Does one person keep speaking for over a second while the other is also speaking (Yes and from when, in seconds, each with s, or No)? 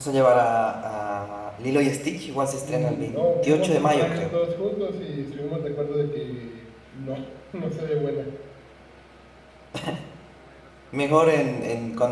Yes, from 2.6 s